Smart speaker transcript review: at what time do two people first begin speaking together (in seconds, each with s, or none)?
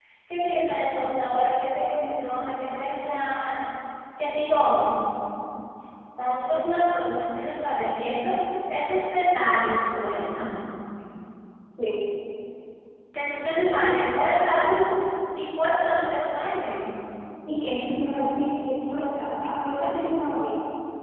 none